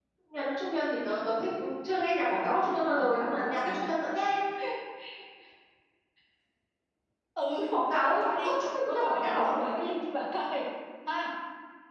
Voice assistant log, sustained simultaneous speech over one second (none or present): present